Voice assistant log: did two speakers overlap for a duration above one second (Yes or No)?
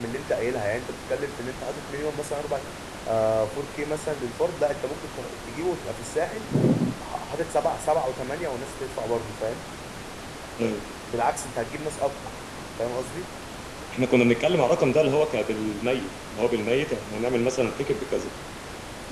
No